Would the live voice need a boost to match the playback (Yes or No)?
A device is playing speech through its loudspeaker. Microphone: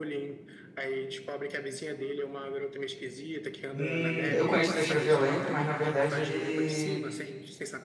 No